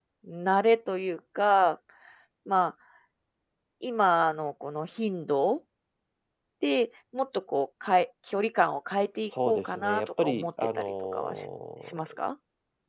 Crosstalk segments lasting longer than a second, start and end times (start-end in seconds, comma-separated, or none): 9.5-11.4